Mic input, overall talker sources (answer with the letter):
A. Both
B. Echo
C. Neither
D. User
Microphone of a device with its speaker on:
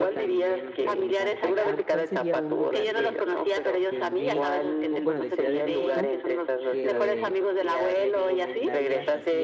A